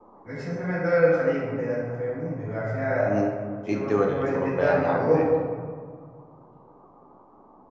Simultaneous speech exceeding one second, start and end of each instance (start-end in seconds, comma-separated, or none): 3.7-5.3